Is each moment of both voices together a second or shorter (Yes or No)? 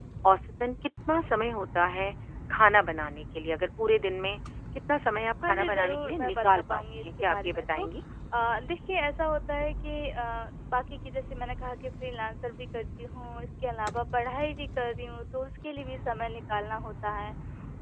No